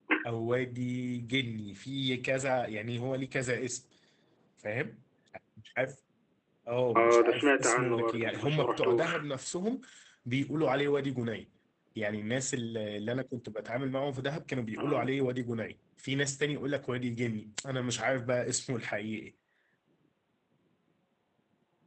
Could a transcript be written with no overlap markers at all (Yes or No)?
No